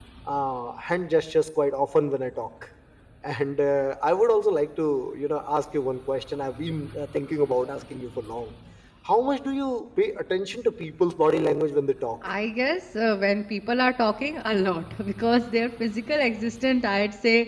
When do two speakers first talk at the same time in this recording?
none

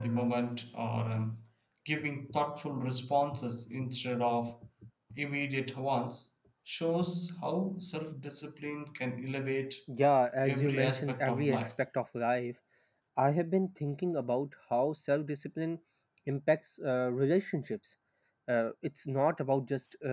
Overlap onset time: 10.4 s

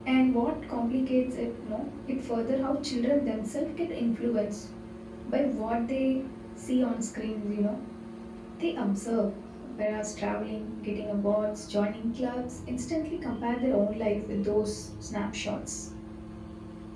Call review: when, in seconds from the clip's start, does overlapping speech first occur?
none

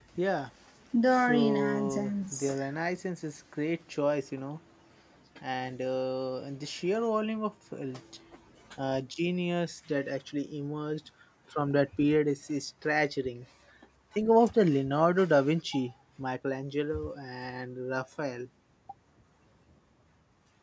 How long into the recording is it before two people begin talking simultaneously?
1.1 s

